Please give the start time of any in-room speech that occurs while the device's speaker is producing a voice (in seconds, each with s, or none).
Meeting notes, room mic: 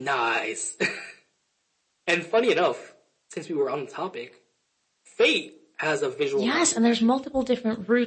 6.3 s